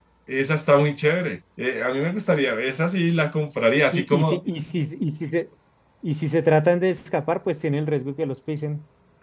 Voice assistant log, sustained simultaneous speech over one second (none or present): none